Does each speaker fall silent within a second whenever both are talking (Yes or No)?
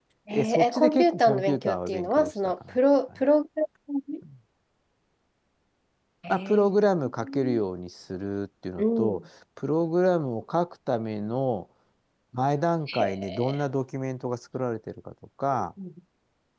No